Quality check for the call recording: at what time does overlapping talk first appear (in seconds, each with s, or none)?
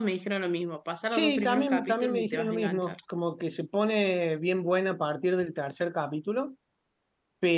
1.1 s